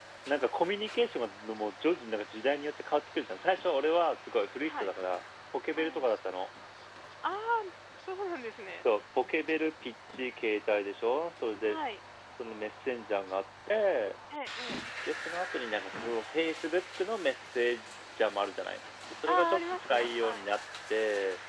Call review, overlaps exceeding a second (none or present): present